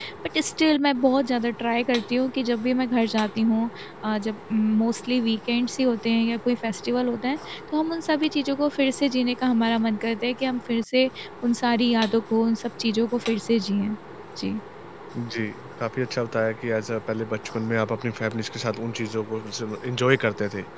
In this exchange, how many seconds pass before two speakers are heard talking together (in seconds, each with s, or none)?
none